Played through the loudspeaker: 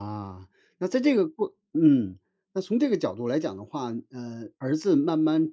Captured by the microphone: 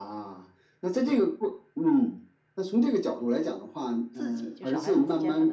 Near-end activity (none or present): present